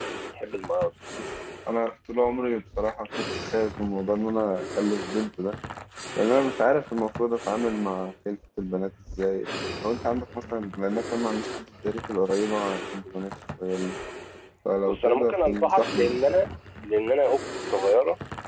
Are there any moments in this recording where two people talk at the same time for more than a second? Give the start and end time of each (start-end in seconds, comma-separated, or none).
14.8-16.2